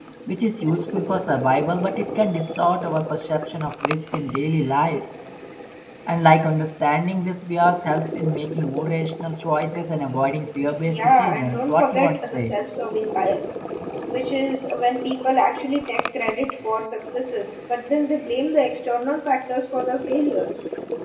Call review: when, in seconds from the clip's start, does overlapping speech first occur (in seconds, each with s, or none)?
10.8 s